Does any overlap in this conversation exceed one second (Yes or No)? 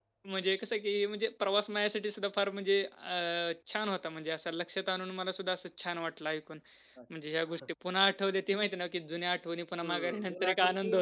Yes